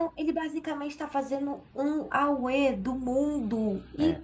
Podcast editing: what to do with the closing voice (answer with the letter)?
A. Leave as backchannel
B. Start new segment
A